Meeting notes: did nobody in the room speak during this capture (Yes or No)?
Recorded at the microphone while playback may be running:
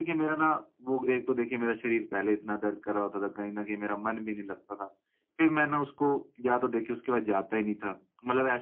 Yes